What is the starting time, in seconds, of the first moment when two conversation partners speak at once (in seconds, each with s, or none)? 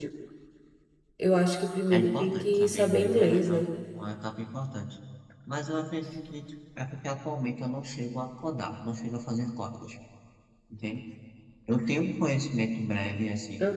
1.9 s